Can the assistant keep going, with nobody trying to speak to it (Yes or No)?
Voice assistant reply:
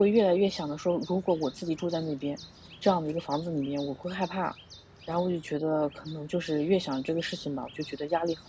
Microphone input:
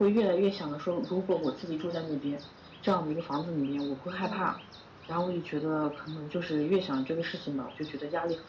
No